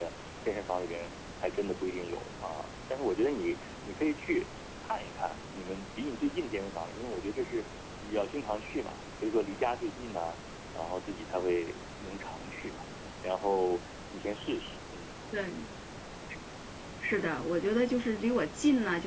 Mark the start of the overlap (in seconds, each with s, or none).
none